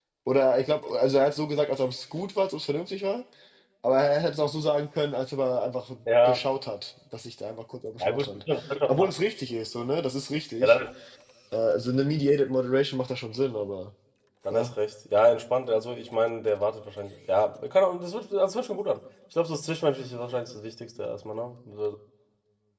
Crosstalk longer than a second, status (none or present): none